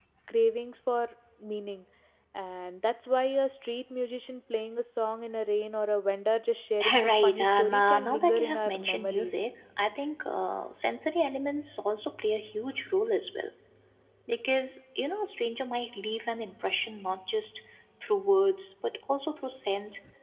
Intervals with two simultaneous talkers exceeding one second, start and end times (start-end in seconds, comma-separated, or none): 6.9-9.3